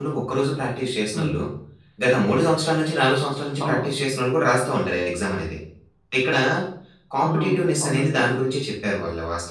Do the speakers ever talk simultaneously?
Yes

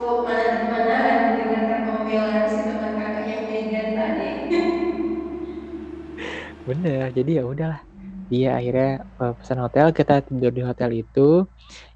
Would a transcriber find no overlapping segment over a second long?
Yes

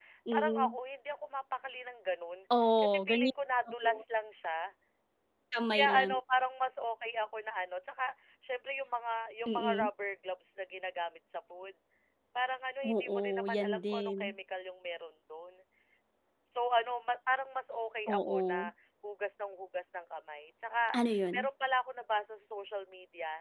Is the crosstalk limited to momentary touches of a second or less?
No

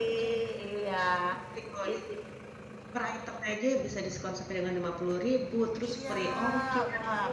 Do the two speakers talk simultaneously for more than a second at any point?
Yes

